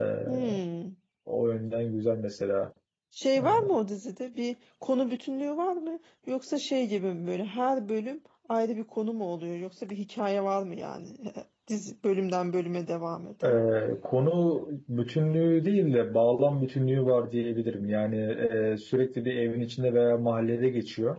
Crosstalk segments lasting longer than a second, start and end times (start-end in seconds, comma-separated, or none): none